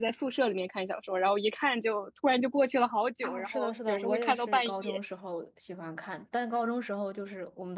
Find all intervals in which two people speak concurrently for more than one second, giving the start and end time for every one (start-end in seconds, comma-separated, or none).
3.2-5.0